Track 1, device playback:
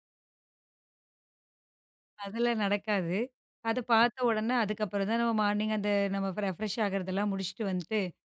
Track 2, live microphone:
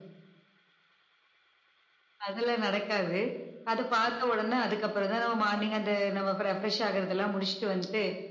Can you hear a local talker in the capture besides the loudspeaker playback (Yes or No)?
No